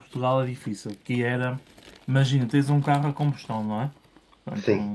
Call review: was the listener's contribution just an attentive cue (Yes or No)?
Yes